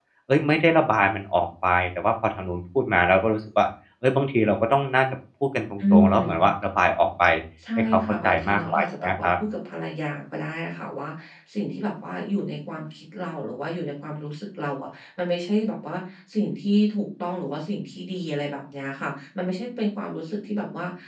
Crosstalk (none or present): present